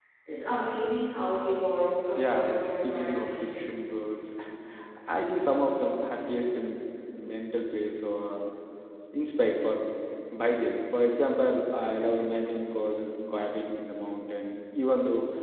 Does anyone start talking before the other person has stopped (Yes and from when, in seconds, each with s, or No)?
Yes, from 2.2 s